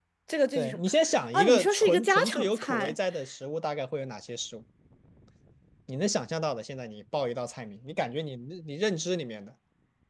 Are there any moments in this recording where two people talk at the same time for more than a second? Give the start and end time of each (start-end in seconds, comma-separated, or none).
1.3-2.9